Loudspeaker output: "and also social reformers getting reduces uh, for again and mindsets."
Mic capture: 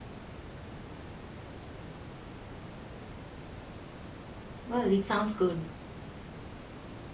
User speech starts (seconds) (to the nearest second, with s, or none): 5 s